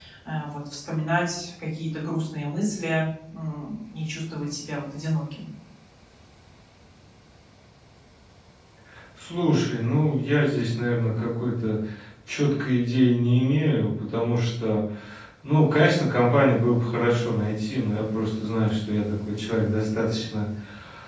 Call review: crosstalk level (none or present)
none